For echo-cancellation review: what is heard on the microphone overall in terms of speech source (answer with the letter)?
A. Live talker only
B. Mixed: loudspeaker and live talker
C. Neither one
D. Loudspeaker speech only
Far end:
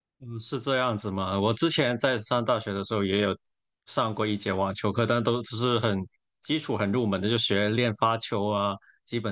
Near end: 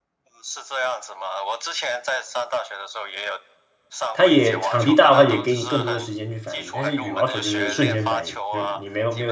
B